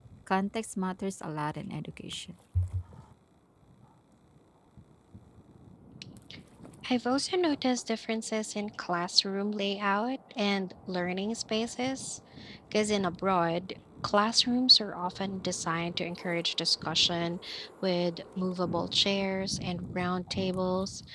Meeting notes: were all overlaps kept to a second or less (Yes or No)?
Yes